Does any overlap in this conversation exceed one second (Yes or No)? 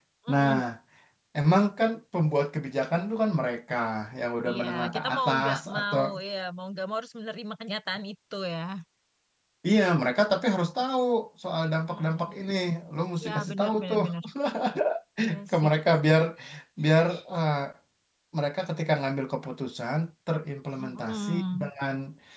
Yes